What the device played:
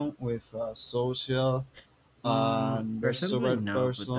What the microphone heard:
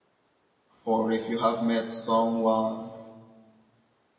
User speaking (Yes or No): Yes